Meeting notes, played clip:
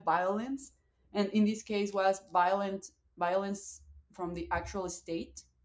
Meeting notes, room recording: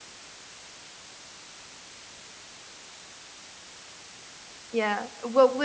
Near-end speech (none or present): present